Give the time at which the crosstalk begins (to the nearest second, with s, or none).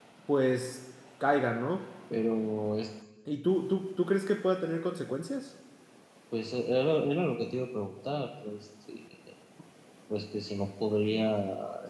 none